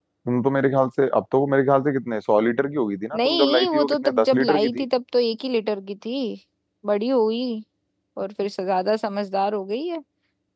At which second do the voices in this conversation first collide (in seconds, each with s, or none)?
3.1 s